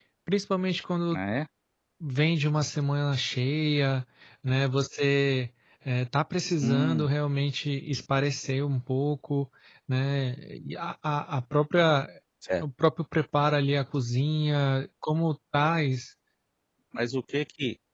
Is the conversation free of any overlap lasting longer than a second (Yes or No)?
Yes